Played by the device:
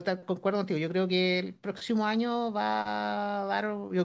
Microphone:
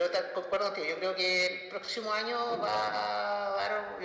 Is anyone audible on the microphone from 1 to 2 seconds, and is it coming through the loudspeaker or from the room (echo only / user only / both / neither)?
echo only